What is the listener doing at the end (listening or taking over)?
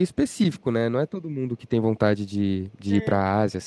listening